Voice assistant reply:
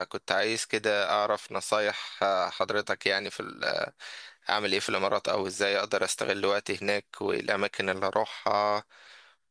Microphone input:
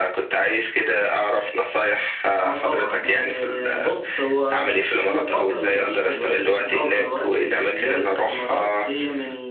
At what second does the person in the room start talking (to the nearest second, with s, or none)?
2 s